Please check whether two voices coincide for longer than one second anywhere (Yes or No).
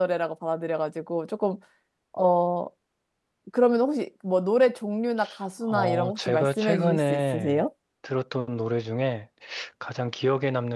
Yes